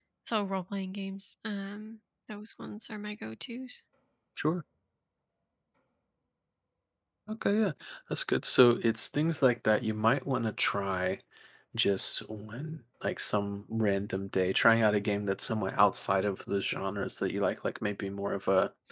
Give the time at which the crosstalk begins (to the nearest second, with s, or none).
none